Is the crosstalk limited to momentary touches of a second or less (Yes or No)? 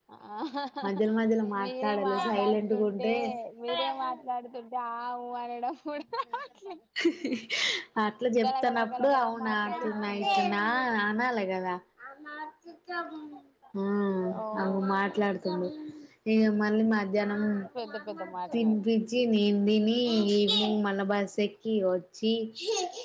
No